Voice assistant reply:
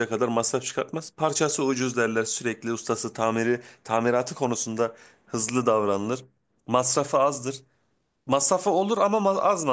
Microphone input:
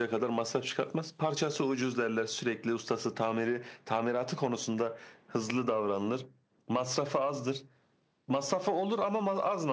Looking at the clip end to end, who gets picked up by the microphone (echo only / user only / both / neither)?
echo only